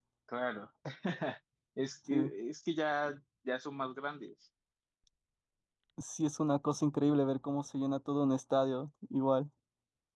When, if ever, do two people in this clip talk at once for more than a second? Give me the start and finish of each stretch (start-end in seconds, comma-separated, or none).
none